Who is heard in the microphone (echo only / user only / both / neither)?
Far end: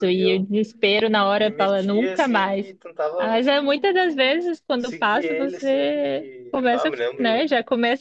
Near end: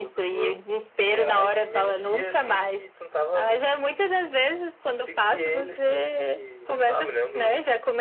both